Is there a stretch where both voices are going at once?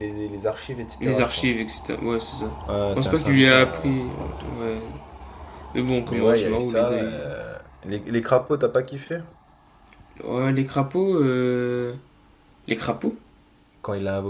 Yes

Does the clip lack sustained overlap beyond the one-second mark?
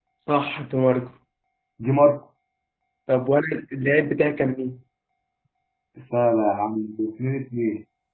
Yes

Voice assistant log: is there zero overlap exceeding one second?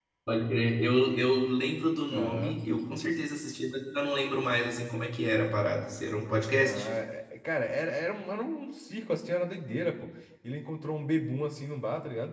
Yes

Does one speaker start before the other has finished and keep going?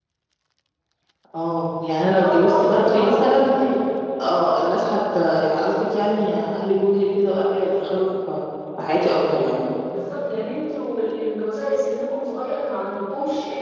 Yes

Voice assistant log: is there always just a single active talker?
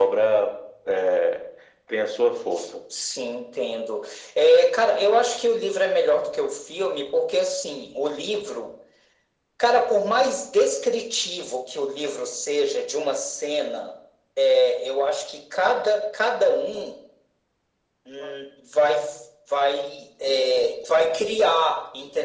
Yes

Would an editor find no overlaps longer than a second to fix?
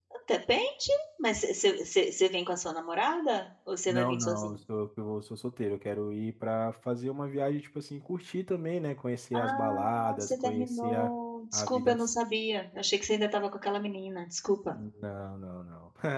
No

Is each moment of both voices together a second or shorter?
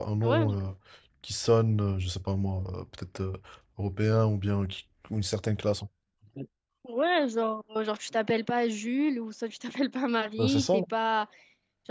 Yes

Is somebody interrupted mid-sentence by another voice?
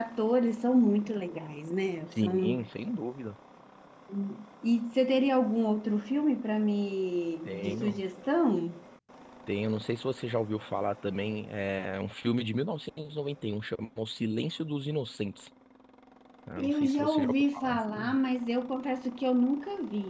Yes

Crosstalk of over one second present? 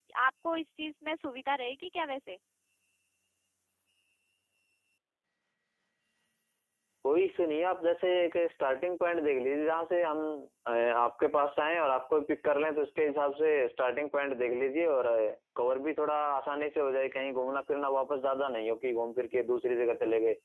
No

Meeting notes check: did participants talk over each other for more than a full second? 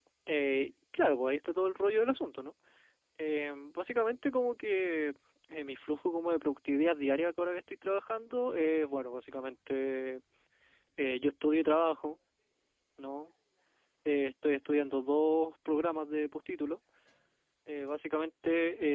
No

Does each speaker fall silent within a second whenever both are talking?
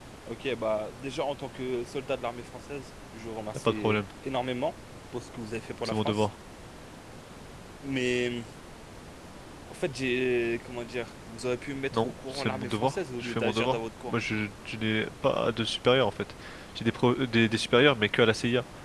No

